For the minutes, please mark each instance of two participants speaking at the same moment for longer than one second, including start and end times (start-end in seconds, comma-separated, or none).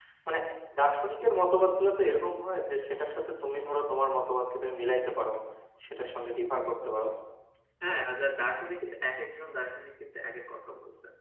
none